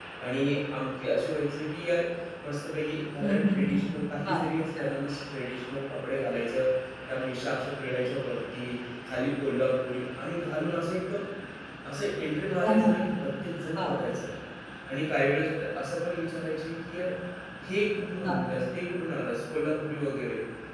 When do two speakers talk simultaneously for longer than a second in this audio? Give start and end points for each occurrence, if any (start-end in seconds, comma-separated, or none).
none